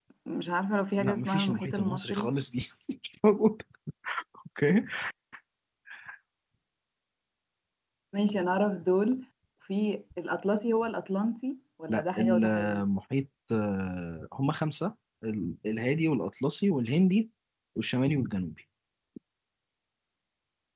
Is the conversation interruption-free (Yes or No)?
No